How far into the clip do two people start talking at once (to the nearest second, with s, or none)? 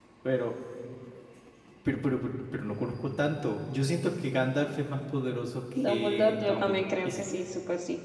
6 s